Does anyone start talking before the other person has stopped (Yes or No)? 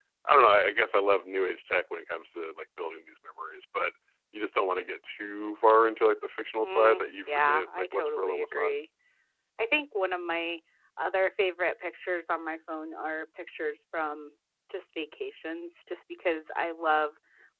Yes